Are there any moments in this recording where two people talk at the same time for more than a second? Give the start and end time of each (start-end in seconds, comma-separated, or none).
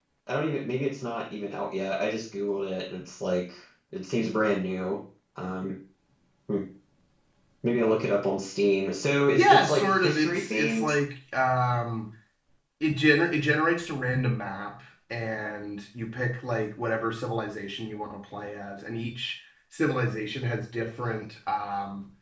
9.4-10.9